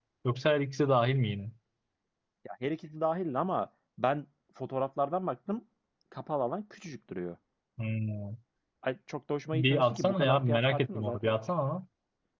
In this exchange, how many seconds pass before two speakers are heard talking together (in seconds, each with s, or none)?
9.5 s